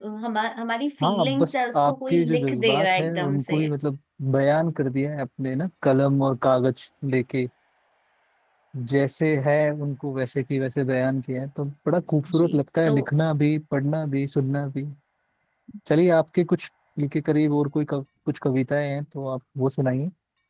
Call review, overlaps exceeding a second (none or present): present